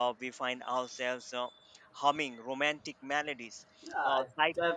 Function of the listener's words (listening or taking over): taking over